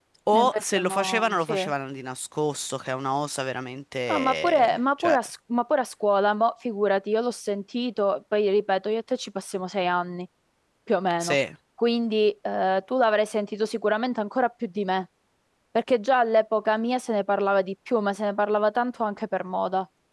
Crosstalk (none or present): present